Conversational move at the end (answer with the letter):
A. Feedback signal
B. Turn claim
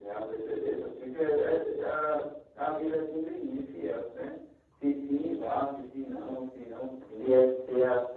B